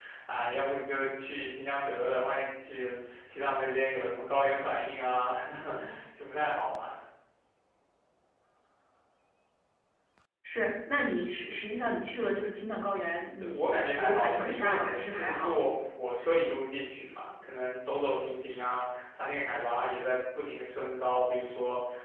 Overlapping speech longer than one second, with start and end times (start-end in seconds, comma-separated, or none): 13.4-15.6